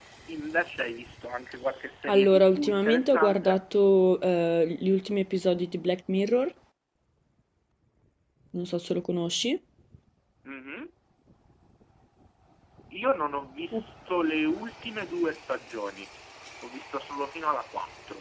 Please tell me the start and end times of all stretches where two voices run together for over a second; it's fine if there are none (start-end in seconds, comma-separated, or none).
2.1-3.6